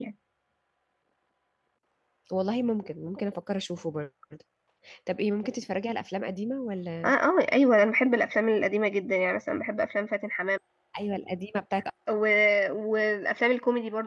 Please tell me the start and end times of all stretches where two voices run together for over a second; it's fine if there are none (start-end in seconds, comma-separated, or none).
none